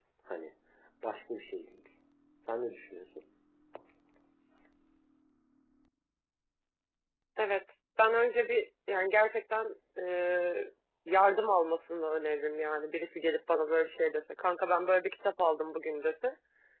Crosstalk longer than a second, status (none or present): none